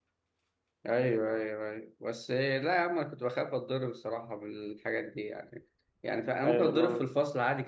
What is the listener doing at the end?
listening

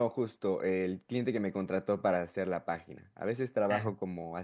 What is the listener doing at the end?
listening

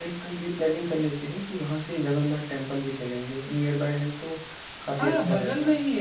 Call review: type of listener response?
taking over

